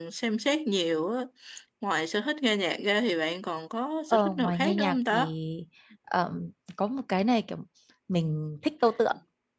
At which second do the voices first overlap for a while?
4.1 s

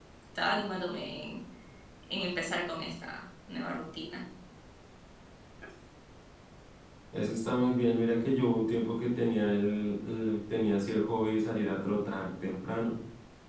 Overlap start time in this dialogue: none

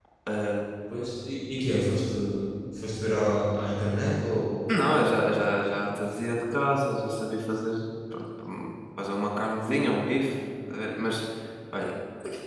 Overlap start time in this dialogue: none

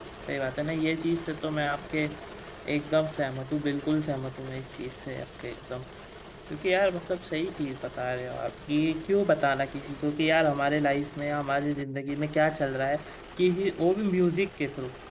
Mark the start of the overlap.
none

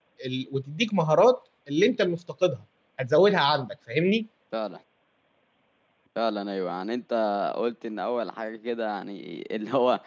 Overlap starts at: none

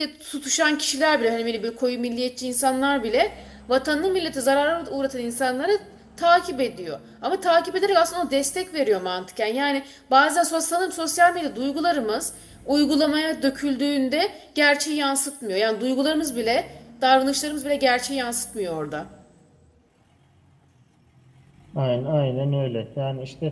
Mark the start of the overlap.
none

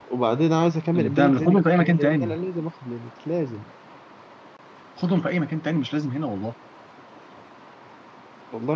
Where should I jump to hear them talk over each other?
0.9 s

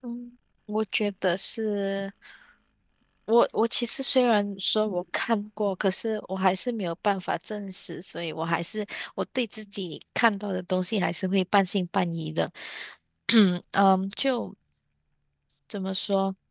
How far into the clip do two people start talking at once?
none

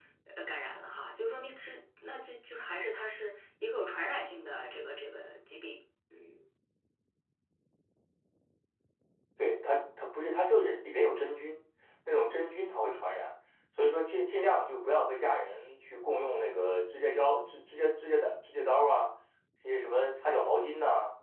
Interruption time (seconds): none

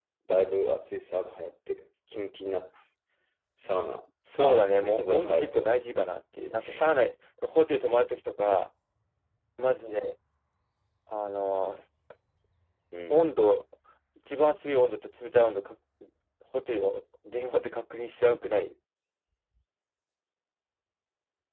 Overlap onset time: 4.4 s

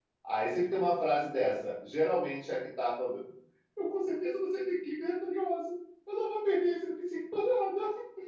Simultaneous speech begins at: none

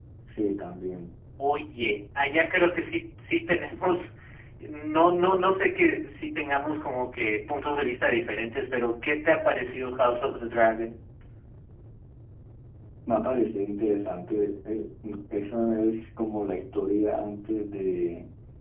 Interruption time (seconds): none

